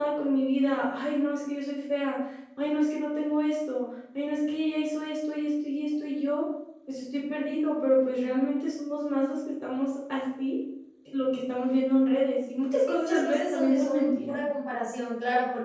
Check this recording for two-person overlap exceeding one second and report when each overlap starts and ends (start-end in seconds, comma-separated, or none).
12.7-14.4